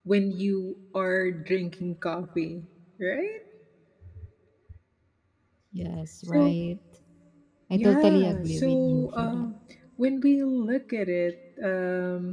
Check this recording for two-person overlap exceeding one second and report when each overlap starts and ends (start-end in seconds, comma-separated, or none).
7.7-9.5